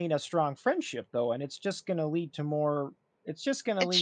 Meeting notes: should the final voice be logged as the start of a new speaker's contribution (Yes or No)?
No